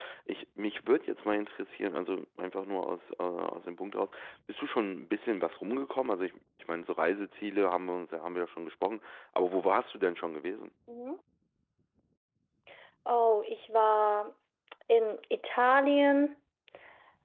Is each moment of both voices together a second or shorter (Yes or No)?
Yes